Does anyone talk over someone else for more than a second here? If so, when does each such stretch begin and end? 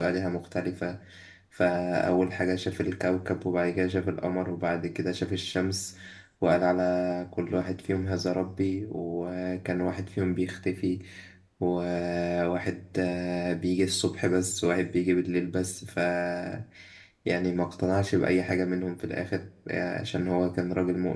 none

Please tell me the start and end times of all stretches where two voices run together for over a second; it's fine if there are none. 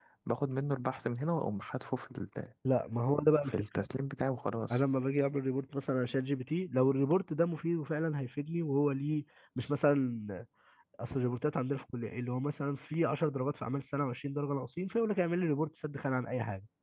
none

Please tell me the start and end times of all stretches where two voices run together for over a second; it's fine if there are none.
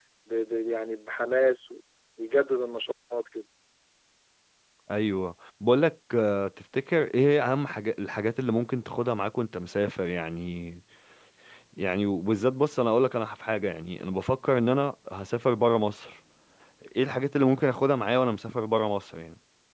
none

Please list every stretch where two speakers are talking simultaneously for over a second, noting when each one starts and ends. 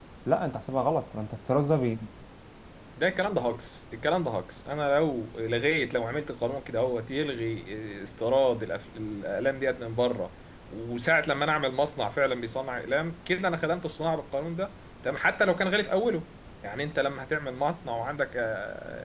none

